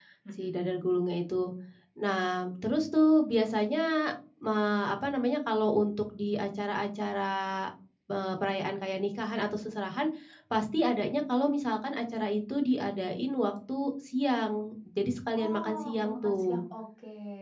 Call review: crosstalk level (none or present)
present